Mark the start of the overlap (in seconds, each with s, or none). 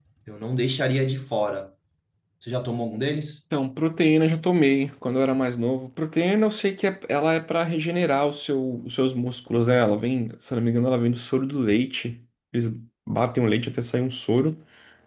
none